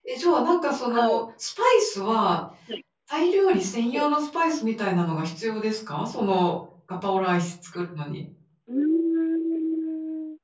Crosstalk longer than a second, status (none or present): none